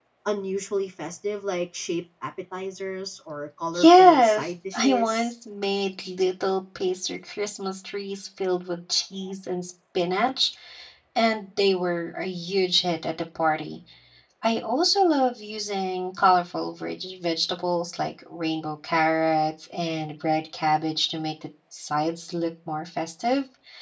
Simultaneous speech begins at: 4 s

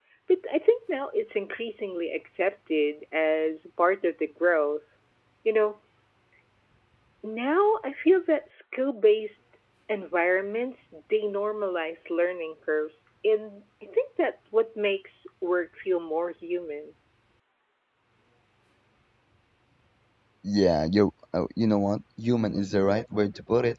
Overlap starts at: none

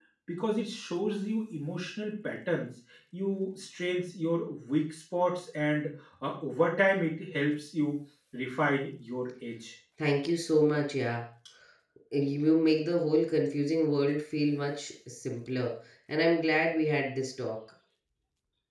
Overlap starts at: none

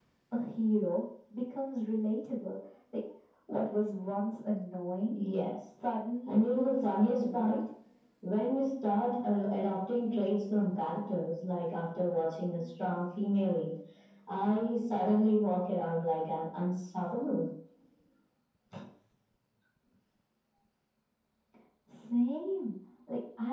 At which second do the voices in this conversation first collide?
6 s

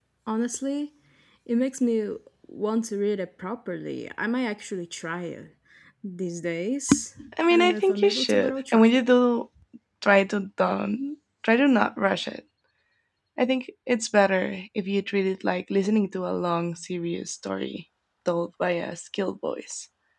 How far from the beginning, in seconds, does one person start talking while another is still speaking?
7 s

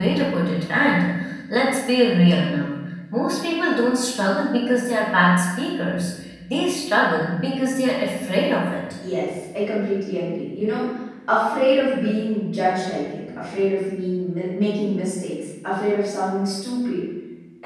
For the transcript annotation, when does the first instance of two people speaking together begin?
none

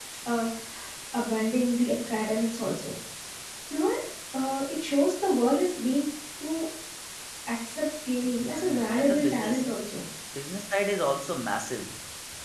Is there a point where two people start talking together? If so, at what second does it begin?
8 s

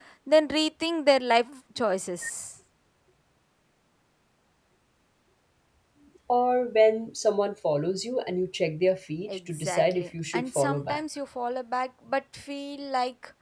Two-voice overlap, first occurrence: 9 s

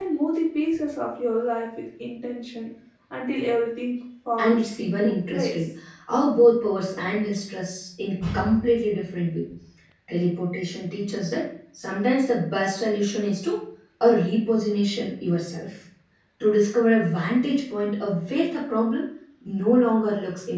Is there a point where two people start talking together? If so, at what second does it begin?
4 s

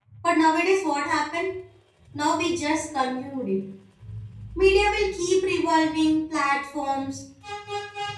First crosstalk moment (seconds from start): none

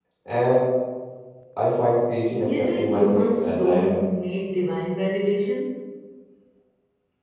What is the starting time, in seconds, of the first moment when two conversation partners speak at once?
2 s

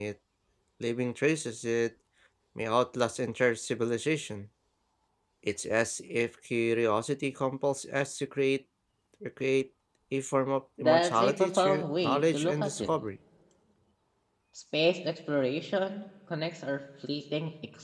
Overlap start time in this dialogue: 11 s

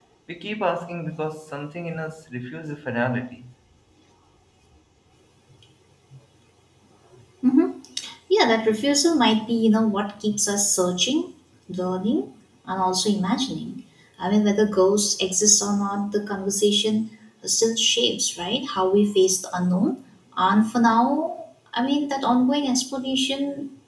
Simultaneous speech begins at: none

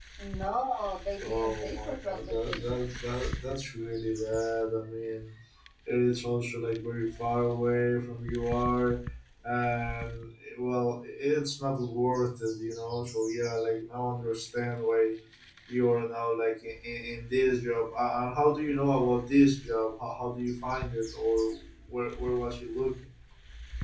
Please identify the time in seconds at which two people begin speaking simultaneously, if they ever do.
1 s

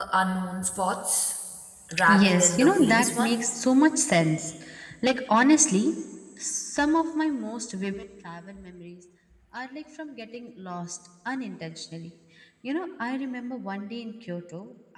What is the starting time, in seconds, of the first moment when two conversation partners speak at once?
2 s

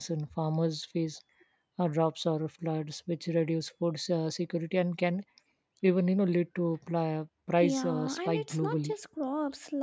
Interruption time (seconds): 8 s

